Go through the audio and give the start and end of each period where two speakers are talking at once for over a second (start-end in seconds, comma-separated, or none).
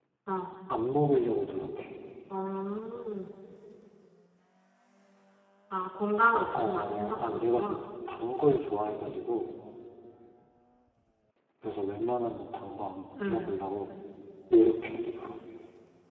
6.5-7.8